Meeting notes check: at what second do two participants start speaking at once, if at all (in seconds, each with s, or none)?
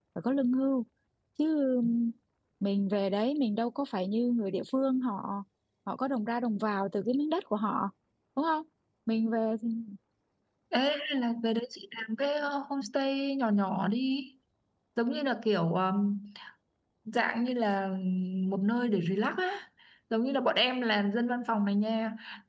none